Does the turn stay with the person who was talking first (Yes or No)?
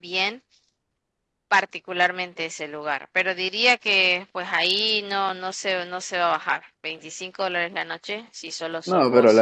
No